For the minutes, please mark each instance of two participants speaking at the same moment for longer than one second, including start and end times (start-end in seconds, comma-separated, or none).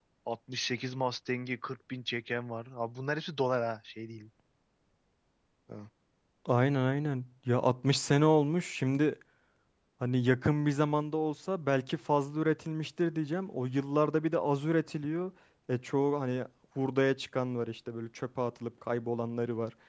none